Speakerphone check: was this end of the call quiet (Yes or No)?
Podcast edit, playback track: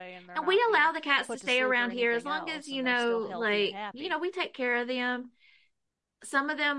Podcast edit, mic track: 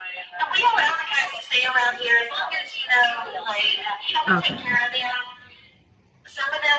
No